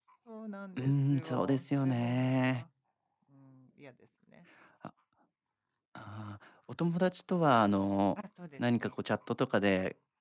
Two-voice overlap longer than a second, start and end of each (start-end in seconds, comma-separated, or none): 0.8-2.6